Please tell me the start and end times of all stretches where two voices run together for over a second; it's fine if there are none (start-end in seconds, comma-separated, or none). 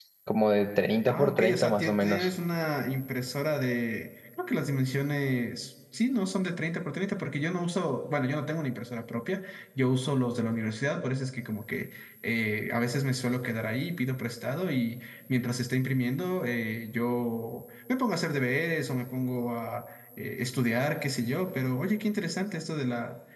1.1-2.3